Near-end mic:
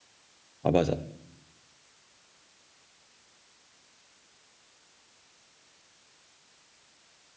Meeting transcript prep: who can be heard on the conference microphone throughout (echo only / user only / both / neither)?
user only